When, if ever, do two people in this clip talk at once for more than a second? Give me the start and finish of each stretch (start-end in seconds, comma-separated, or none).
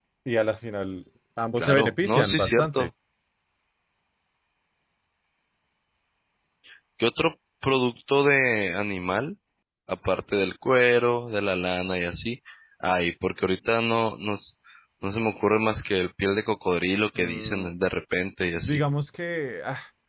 1.6-2.9